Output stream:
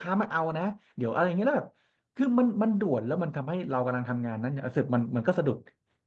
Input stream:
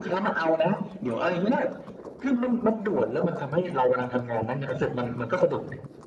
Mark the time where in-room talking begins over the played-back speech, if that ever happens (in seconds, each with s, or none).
none